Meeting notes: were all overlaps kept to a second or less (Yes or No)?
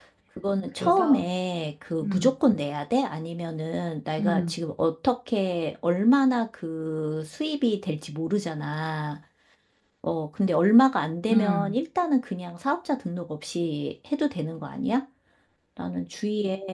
Yes